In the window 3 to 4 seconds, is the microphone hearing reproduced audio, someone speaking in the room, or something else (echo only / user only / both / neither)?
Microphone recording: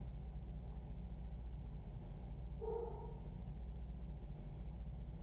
neither